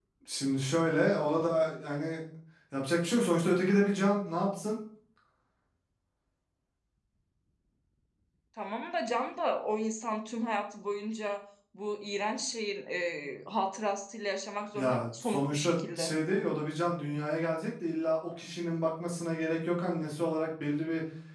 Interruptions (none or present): present